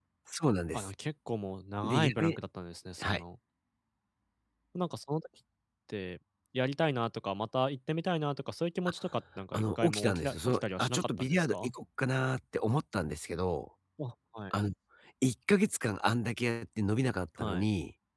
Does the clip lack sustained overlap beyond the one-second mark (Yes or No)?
No